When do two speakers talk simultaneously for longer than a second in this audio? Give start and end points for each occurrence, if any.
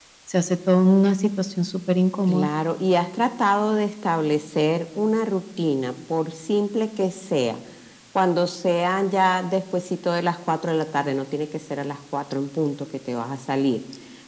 none

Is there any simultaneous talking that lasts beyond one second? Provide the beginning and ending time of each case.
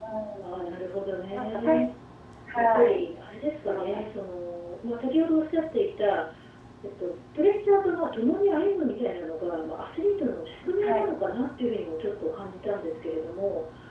none

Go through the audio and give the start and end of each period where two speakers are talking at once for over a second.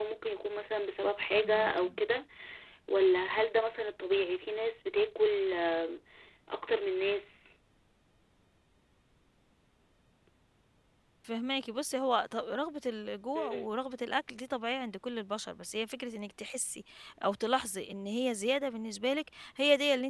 none

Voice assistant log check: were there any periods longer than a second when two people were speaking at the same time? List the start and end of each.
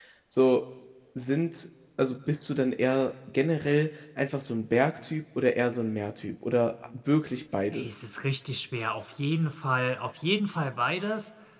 none

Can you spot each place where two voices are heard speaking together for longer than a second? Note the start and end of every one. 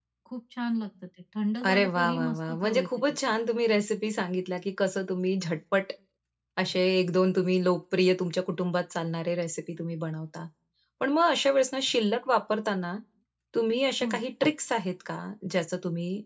1.6-3.2

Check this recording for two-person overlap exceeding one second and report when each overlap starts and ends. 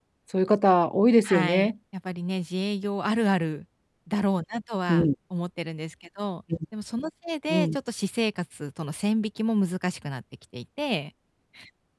none

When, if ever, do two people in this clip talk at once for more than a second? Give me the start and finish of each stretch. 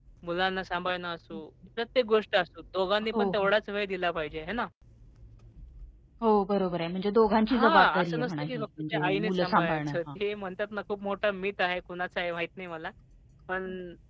7.5-10.0

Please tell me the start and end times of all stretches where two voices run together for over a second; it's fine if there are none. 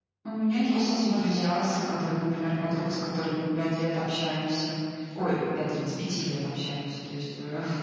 0.5-2.1

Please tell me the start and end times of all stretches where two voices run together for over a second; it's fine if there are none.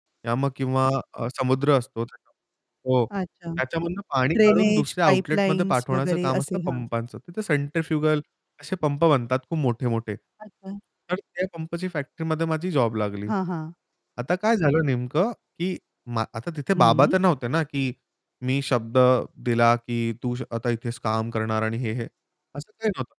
4.3-6.8

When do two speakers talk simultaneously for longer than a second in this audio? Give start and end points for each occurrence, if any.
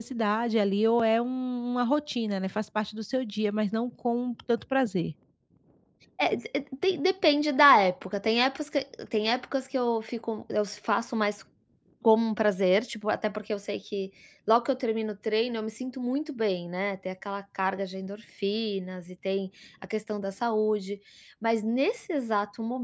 none

